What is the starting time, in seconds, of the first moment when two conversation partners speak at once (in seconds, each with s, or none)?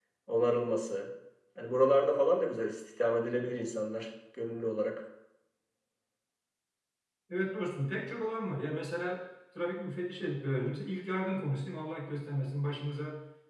none